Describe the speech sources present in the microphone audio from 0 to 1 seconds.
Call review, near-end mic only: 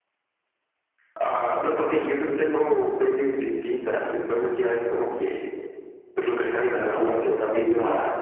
neither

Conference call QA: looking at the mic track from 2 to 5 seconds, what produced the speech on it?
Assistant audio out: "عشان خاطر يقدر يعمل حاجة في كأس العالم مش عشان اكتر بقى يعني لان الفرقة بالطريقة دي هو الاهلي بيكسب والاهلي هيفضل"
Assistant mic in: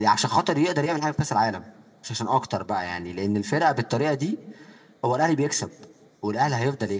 echo only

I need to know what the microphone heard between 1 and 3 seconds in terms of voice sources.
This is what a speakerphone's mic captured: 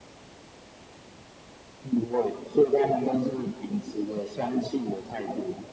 echo only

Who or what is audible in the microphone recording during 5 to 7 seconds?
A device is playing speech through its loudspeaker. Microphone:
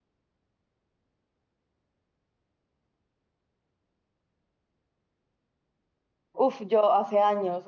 user only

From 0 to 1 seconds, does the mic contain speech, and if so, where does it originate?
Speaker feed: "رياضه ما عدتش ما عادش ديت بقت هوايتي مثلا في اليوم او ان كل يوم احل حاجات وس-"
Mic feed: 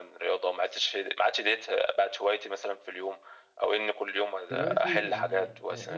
echo only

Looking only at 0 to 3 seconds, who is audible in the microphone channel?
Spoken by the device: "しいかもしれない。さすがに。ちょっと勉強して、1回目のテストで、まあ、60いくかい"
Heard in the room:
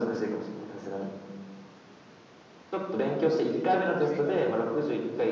echo only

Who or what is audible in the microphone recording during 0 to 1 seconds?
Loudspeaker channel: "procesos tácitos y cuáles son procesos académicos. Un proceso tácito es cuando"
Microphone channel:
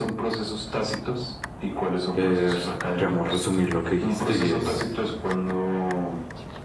echo only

